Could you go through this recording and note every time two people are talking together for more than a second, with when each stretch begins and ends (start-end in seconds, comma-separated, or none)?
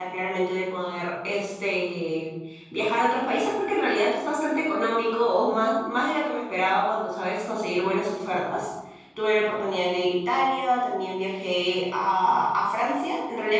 none